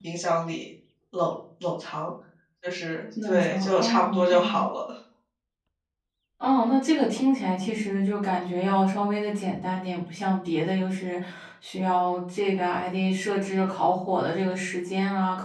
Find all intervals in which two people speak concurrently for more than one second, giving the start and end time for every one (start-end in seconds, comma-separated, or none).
3.2-4.6